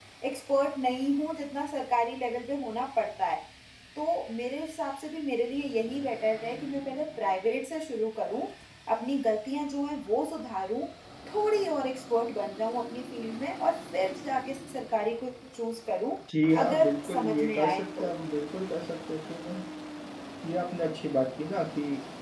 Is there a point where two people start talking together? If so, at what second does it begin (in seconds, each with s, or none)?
16.6 s